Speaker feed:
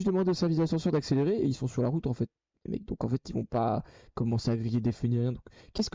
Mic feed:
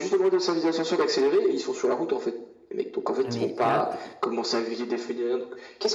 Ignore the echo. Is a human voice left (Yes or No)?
Yes